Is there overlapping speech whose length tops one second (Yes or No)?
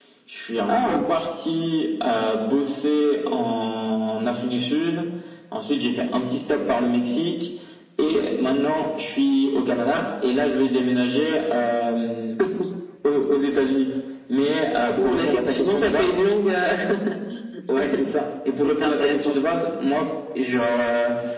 Yes